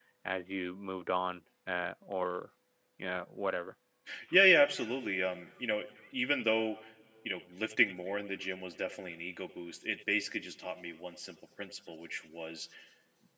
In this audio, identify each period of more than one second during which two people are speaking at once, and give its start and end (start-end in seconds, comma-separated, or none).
none